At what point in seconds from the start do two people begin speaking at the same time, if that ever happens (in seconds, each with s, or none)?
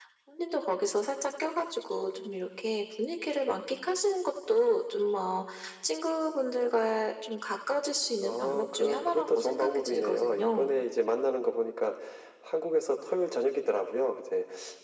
8.2 s